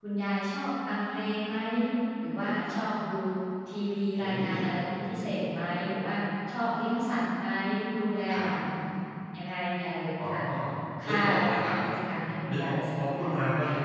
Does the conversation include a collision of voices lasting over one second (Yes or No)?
Yes